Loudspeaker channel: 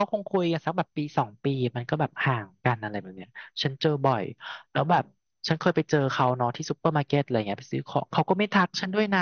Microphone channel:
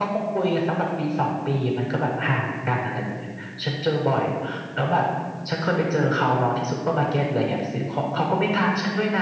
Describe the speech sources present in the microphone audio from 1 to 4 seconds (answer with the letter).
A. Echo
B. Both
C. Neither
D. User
A